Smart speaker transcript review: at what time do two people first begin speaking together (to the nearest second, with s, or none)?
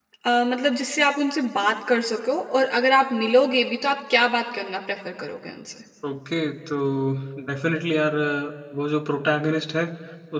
none